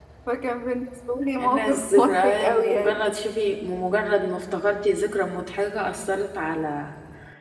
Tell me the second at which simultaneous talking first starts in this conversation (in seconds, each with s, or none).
1.4 s